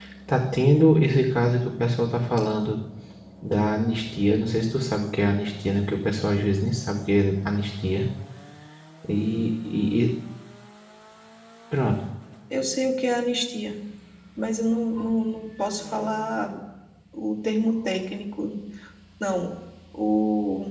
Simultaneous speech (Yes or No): No